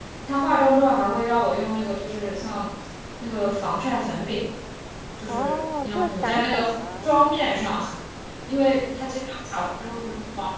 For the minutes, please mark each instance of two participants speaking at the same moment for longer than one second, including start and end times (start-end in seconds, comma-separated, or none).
5.3-7.2